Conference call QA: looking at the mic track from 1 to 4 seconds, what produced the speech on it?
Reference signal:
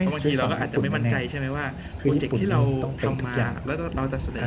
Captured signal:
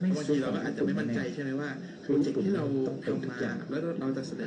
echo only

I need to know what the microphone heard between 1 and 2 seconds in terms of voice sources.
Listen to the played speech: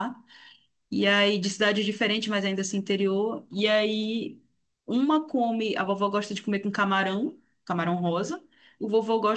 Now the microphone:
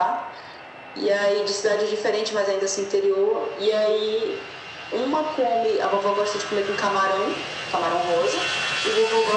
echo only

